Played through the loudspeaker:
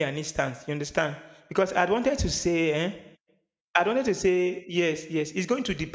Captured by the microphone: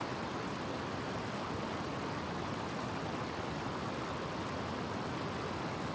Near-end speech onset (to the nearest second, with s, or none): none